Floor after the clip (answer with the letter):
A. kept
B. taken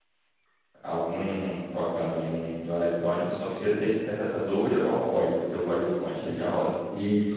B